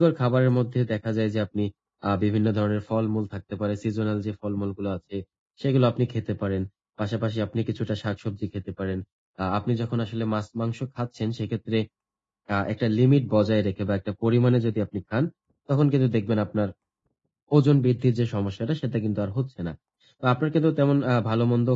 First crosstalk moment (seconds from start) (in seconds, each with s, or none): none